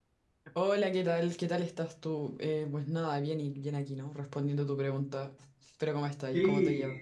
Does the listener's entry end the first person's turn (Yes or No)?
Yes